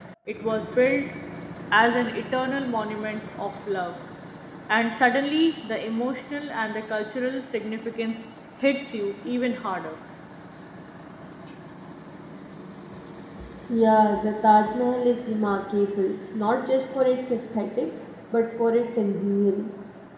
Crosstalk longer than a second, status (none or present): none